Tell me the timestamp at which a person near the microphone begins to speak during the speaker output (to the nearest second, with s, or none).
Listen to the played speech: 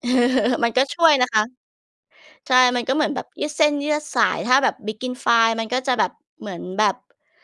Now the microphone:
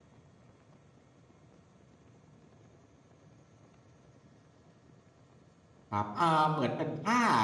6 s